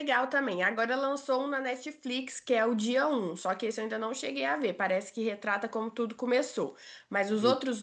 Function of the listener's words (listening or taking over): listening